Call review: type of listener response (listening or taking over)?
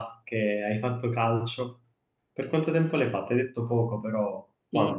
taking over